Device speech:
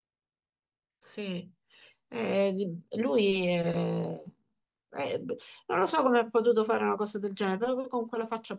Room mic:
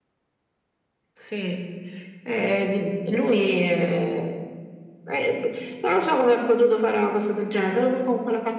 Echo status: present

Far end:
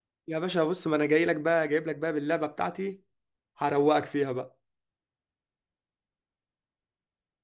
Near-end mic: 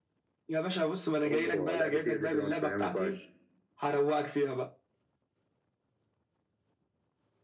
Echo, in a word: present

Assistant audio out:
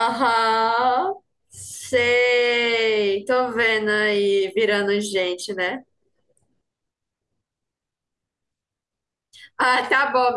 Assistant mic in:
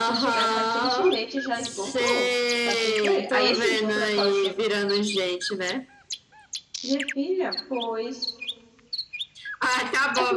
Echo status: present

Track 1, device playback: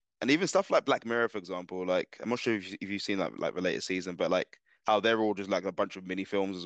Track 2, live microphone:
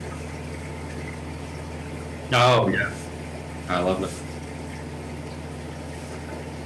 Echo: none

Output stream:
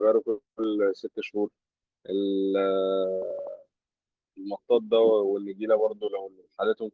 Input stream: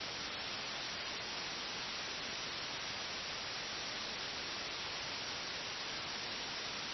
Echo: none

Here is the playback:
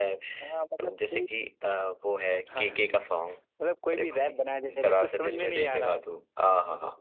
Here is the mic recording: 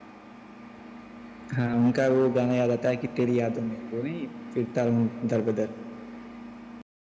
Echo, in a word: none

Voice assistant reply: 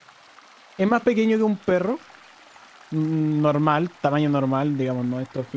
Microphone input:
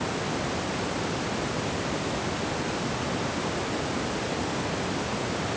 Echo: none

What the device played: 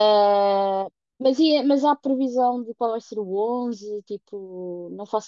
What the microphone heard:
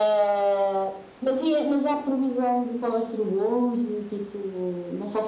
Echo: present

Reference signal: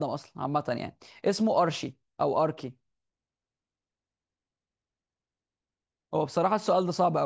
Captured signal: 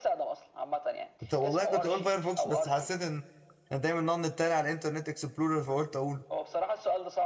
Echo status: present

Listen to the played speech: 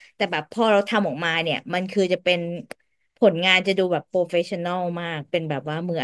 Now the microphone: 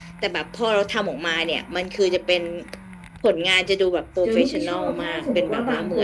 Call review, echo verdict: present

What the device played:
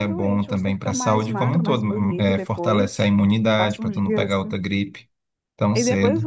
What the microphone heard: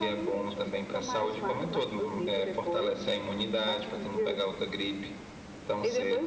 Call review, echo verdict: present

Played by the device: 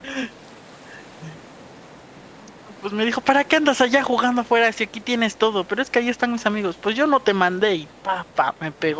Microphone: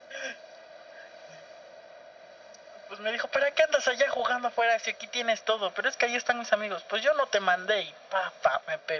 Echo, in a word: present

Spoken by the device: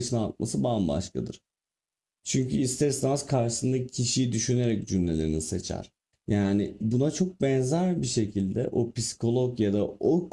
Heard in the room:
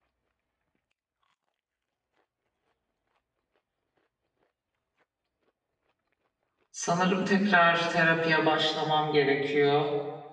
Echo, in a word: none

